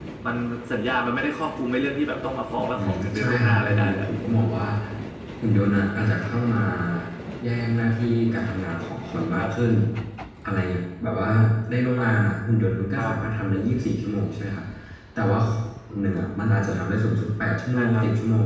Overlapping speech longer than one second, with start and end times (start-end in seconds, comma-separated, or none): 2.8-4.1